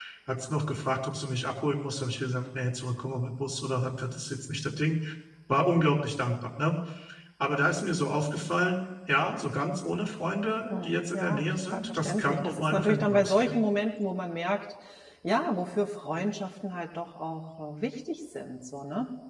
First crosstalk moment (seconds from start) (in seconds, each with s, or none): 10.7 s